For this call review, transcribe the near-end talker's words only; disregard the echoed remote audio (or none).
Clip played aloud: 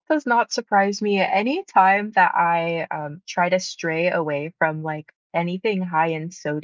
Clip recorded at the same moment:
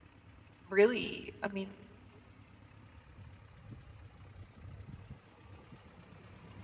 really, I mean,